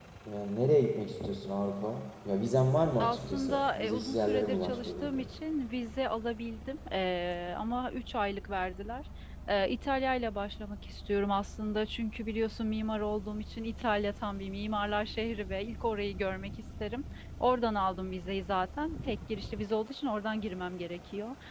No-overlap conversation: No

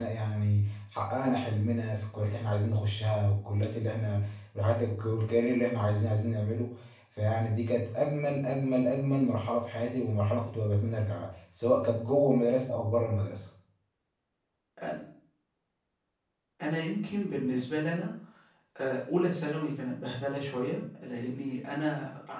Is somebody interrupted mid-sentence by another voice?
No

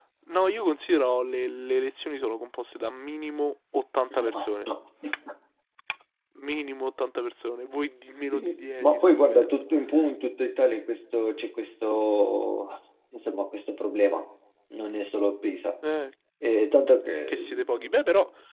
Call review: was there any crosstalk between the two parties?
Yes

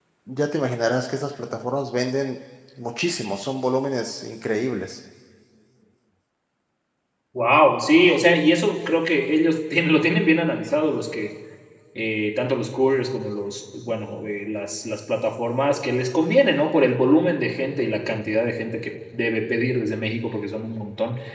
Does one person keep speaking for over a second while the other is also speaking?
No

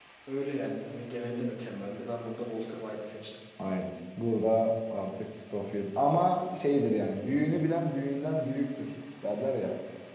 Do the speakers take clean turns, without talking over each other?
Yes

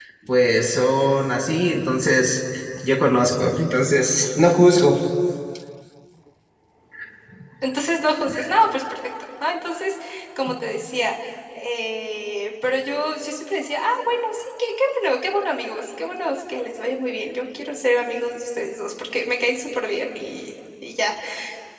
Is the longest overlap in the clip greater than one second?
No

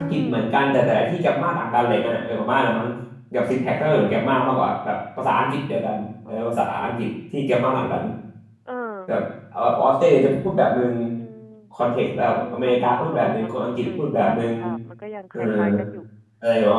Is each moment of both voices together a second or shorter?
No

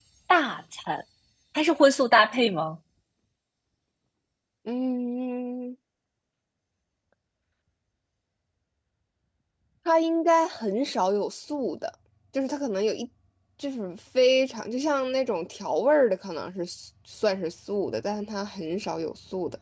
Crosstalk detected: No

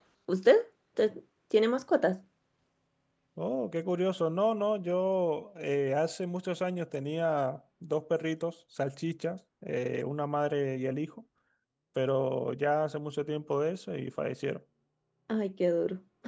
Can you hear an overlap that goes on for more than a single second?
No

